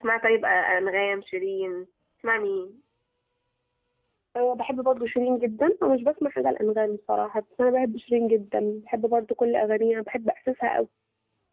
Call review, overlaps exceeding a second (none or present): none